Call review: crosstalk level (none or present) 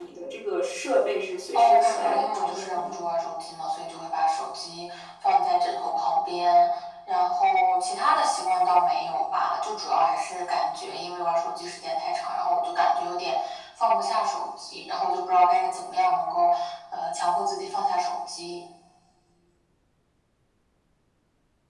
present